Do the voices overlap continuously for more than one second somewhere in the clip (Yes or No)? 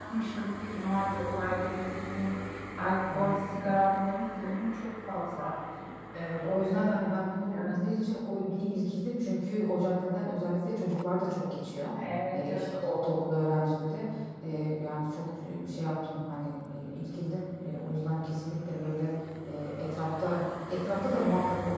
No